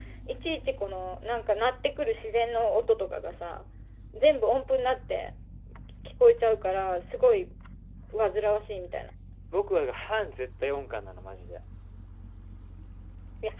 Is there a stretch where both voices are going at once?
No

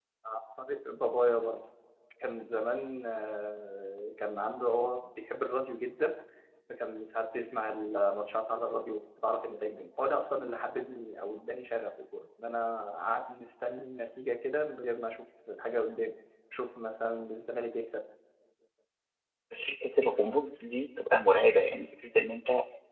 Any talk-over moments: No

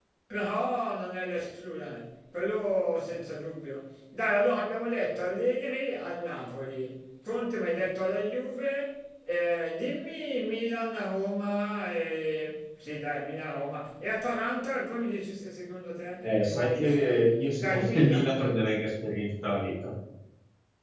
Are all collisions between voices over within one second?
No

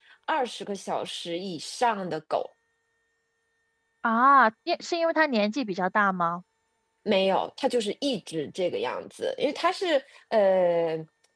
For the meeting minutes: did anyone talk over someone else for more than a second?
No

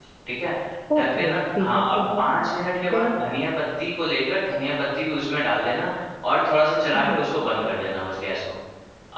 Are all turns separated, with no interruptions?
No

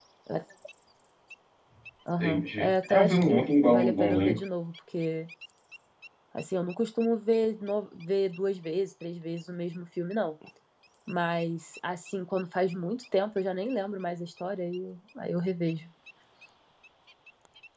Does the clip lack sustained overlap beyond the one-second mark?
No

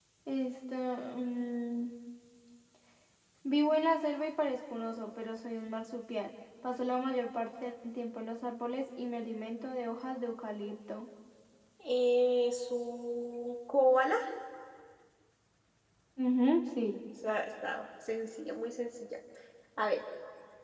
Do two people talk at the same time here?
No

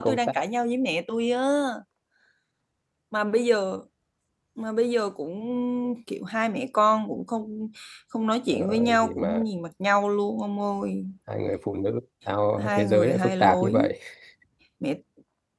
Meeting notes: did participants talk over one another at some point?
Yes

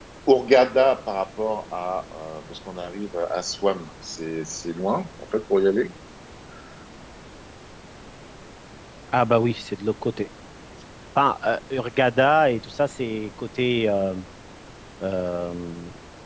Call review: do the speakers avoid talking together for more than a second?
Yes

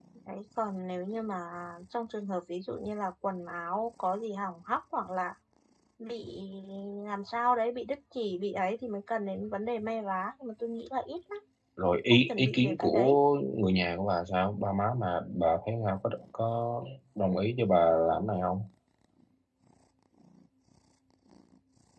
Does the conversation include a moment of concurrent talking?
Yes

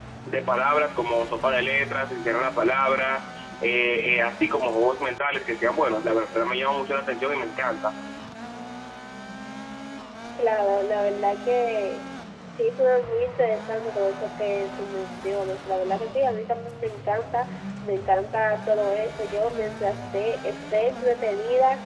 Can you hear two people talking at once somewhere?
No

